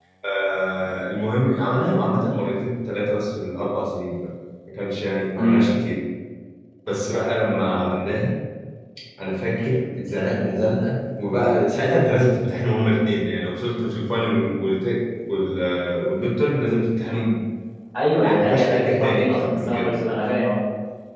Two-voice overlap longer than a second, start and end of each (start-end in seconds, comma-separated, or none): 18.2-19.9